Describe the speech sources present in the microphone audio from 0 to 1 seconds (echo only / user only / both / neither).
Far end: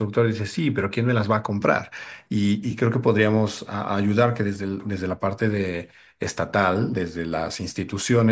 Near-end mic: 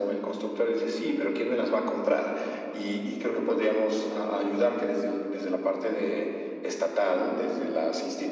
echo only